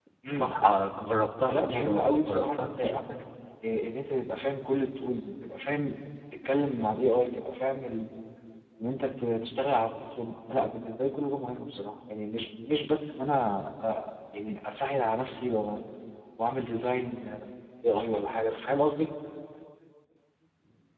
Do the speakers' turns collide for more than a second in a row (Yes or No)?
Yes